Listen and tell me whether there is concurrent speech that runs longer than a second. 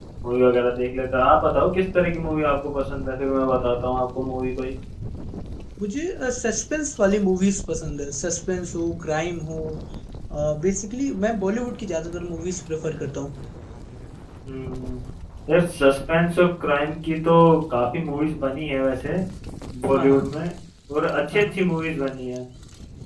No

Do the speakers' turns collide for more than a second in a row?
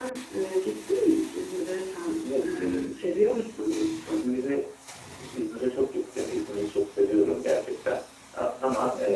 No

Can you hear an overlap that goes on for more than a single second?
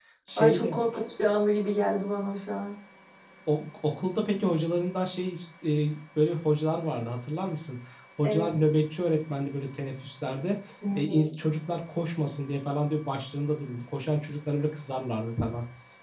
No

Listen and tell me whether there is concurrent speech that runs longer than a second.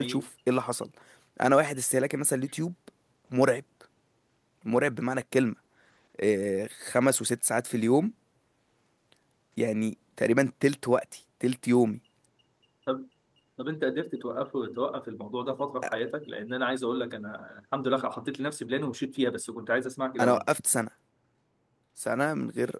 No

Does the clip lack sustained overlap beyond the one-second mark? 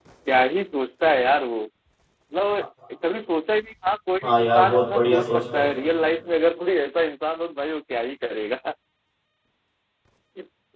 No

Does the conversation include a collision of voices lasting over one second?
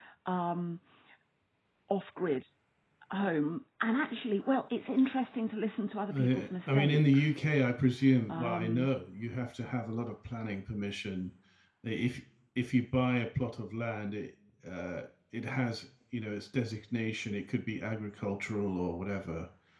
Yes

